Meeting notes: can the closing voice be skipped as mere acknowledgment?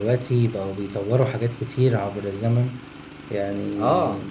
Yes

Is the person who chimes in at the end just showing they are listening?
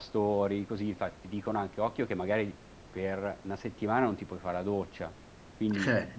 Yes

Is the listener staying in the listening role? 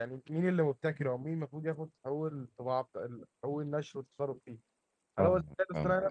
Yes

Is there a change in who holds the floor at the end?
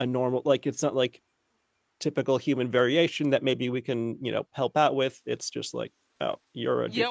Yes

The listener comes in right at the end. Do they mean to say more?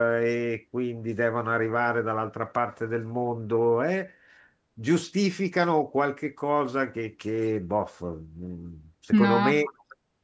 No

